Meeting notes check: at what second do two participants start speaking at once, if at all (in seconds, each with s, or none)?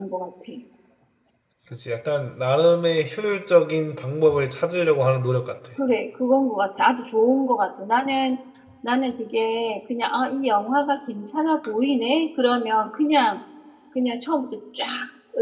none